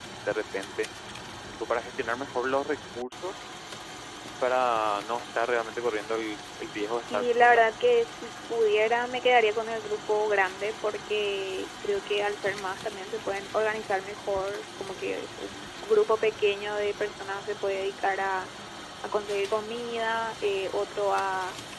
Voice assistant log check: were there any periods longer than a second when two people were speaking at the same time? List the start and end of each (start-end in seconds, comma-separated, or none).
none